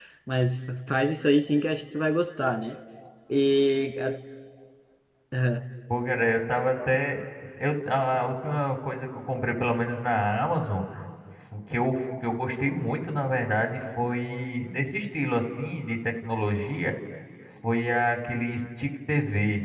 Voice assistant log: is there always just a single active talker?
Yes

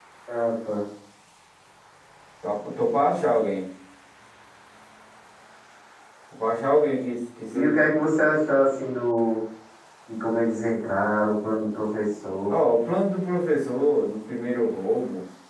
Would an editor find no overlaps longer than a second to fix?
Yes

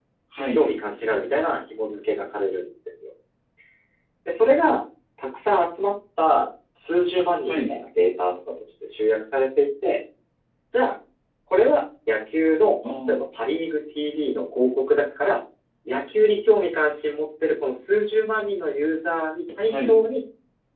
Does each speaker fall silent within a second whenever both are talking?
Yes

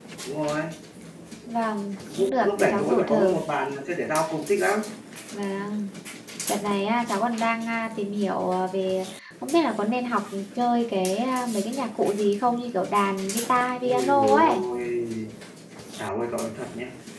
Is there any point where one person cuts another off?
Yes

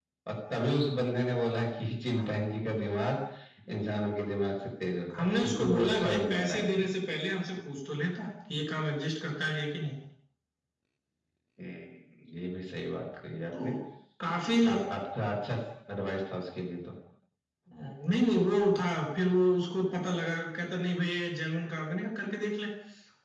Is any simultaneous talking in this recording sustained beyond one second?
Yes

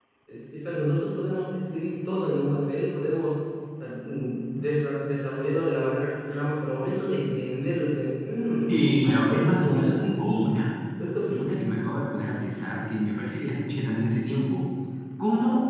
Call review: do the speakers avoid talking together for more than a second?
No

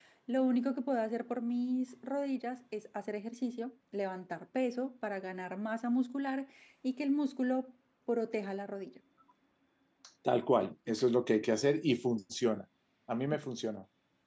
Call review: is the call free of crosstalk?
Yes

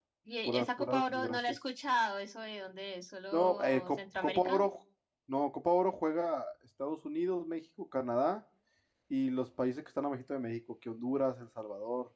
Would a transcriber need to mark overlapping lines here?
Yes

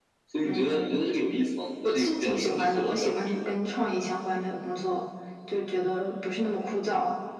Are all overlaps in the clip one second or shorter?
No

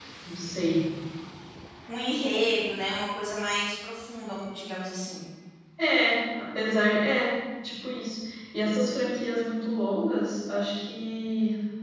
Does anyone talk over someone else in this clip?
No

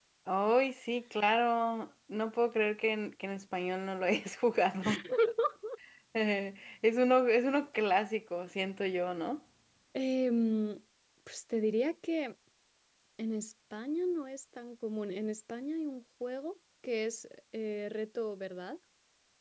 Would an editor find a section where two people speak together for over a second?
No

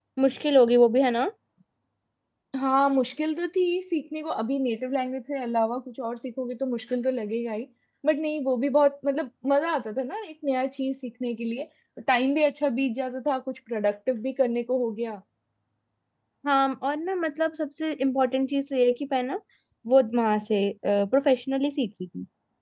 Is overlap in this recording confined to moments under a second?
Yes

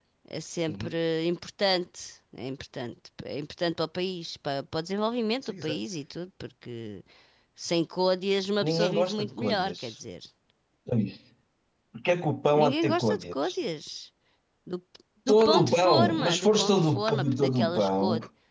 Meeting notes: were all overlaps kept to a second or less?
No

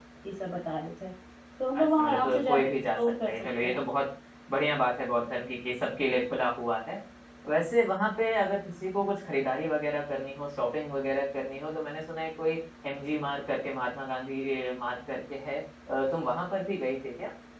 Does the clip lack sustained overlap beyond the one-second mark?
No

